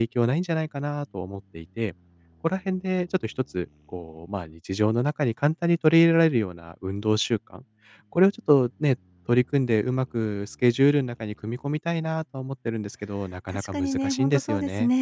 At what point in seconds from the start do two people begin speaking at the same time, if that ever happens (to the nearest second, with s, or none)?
14 s